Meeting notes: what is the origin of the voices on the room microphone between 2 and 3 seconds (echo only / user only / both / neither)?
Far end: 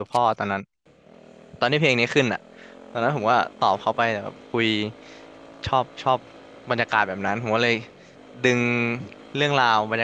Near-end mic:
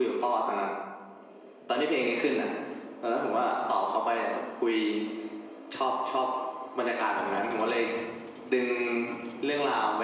echo only